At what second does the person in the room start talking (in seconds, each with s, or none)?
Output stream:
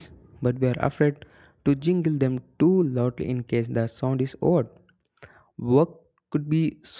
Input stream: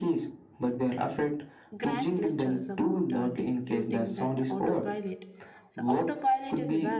1.8 s